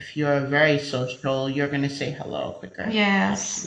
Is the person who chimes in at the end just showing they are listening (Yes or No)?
No